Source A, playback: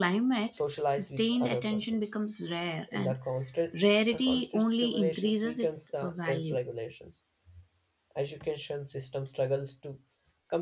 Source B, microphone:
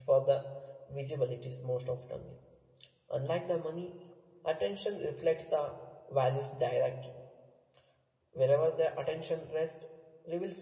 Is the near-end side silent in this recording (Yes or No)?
No